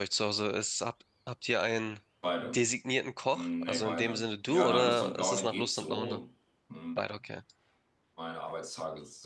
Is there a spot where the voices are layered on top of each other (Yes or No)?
Yes